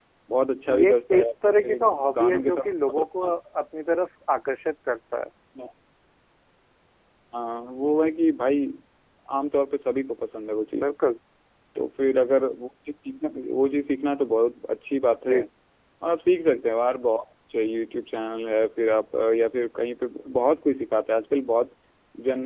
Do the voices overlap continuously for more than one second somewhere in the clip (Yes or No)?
Yes